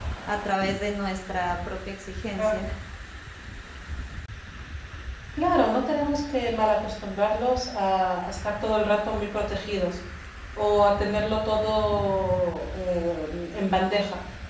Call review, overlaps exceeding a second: none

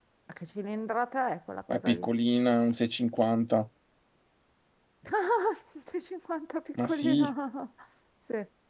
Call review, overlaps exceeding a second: none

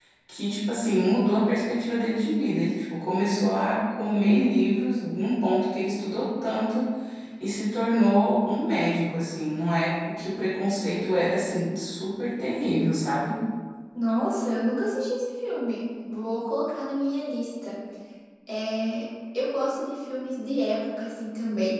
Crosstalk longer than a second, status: none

